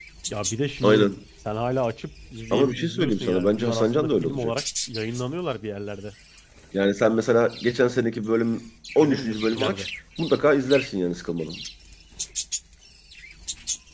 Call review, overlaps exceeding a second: present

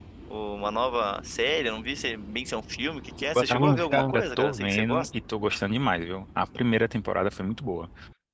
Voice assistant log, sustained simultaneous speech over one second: present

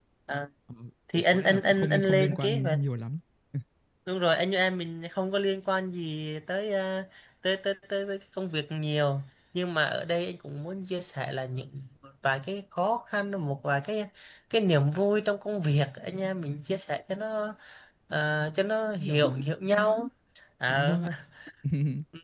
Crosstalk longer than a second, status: present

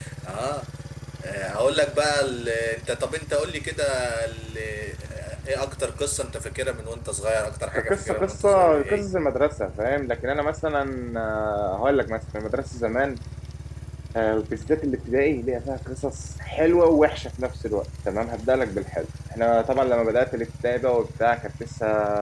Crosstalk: present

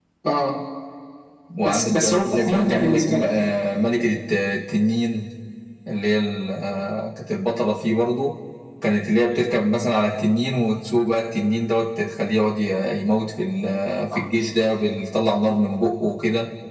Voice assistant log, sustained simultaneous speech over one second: present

